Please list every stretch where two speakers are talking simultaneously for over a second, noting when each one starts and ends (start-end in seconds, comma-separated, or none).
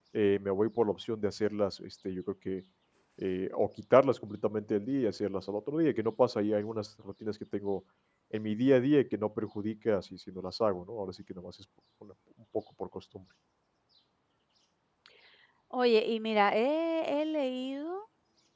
none